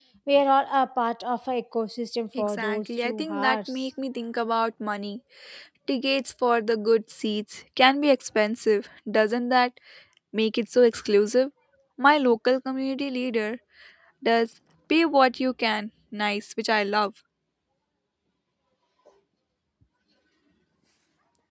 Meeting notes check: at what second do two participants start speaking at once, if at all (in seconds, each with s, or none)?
2.4 s